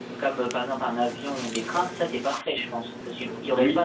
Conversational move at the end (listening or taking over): listening